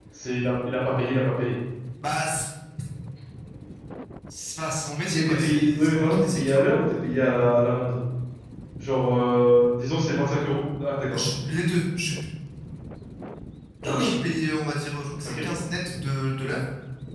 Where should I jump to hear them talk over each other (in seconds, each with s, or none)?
5.1 s